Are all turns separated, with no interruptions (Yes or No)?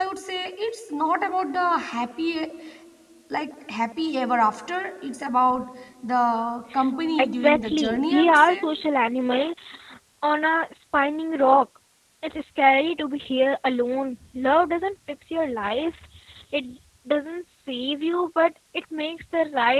No